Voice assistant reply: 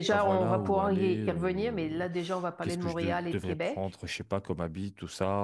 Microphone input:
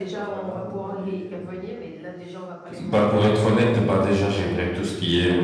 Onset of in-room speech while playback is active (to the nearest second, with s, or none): 3 s